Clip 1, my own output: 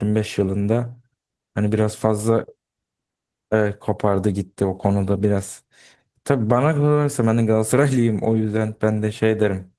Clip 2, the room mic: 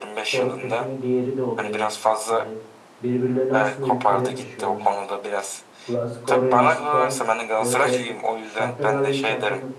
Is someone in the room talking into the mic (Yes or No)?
Yes